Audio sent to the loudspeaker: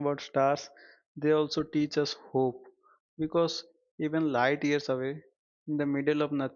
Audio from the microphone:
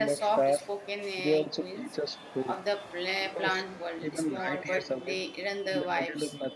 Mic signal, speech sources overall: both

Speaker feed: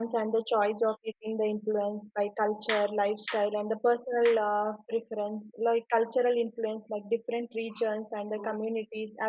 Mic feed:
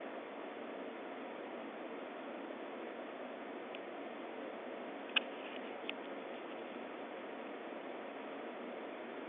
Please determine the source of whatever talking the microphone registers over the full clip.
neither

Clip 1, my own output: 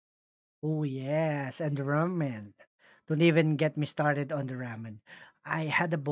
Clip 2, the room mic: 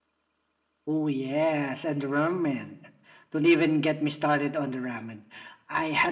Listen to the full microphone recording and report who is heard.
echo only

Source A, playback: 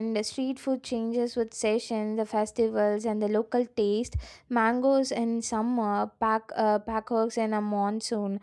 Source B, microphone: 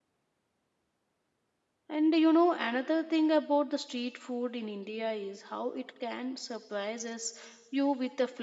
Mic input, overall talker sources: user only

